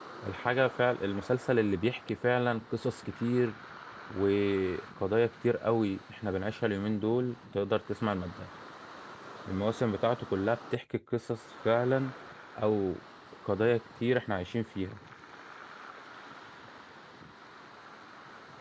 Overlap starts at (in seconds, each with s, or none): none